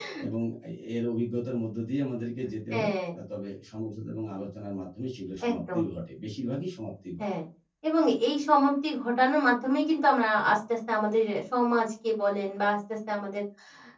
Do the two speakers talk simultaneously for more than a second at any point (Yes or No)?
No